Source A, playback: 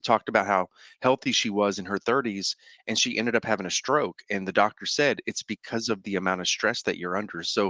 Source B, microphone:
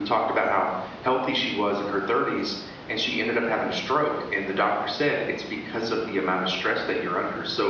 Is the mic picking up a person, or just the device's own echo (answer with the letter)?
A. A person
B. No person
B